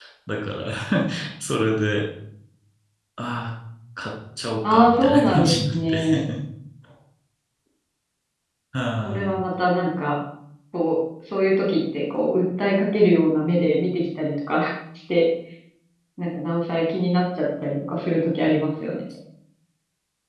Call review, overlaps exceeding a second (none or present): present